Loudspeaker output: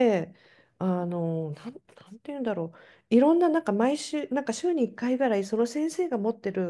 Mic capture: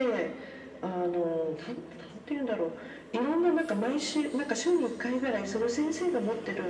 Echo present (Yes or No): Yes